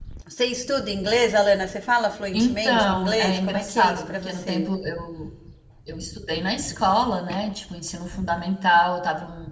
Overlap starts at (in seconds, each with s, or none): 2.3 s